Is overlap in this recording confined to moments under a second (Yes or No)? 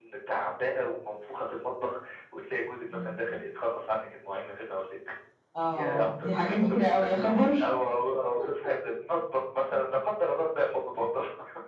No